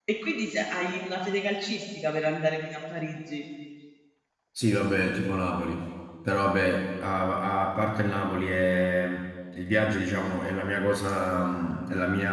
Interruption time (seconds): none

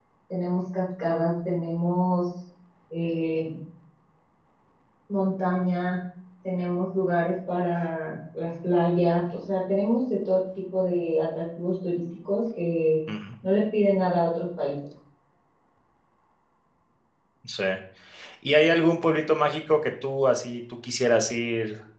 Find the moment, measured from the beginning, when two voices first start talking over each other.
none

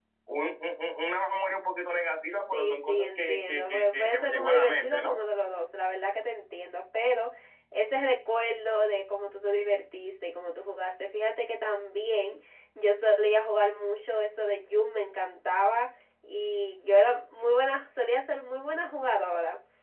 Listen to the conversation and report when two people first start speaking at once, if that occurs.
2.5 s

